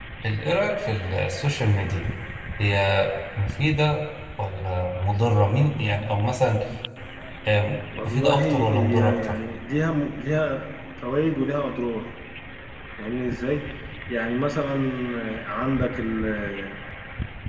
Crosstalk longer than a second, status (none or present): present